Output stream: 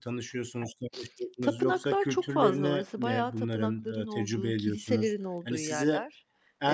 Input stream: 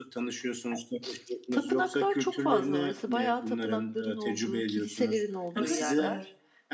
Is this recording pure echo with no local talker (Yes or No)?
No